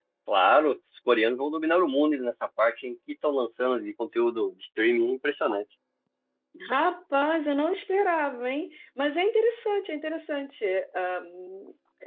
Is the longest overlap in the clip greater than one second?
No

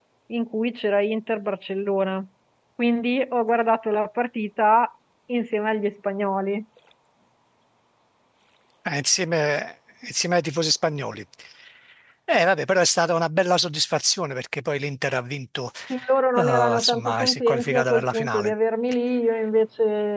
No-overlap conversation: No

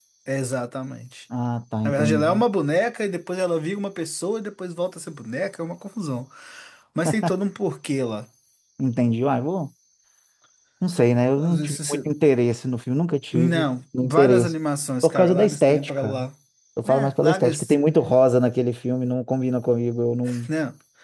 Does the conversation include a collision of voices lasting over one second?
Yes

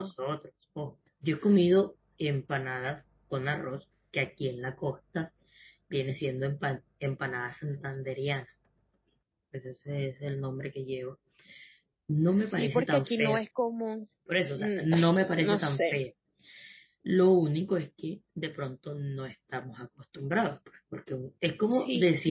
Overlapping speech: Yes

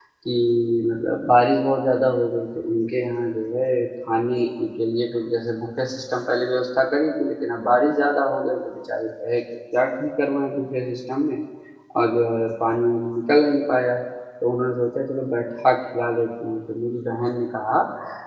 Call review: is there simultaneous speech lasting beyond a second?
No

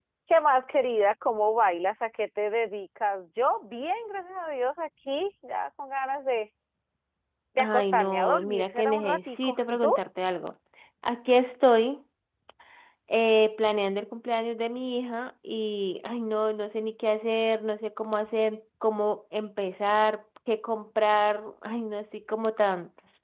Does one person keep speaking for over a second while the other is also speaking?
Yes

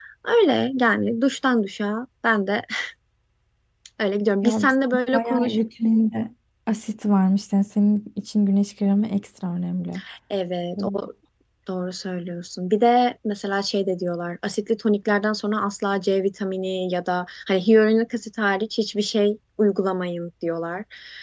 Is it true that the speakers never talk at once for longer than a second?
Yes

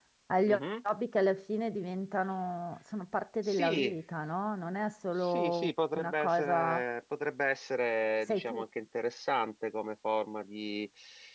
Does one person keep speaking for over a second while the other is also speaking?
Yes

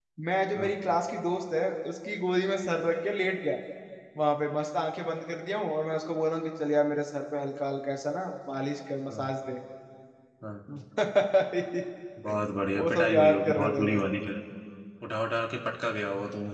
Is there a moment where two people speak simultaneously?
Yes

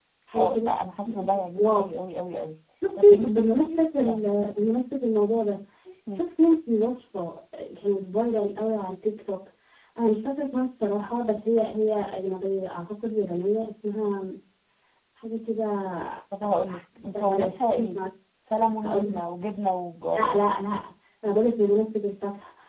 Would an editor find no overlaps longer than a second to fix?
No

